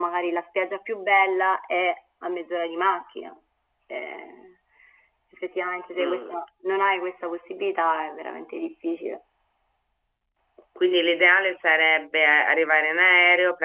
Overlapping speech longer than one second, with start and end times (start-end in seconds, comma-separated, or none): none